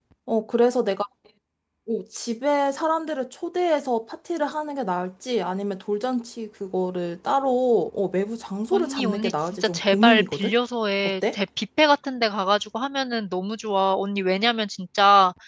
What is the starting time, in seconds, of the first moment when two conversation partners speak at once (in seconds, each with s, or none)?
8.7 s